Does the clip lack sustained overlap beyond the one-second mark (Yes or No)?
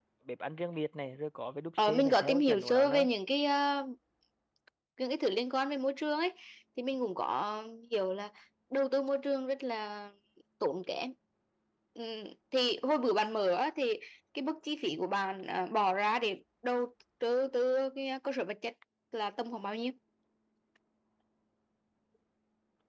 No